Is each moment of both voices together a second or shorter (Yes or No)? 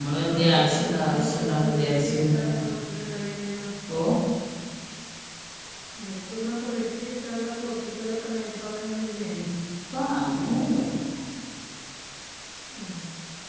No